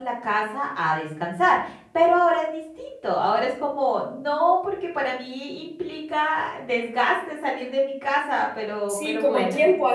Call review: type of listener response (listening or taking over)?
taking over